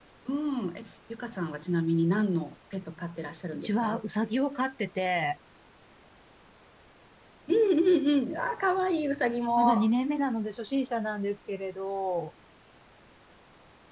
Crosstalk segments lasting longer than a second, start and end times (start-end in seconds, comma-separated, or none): none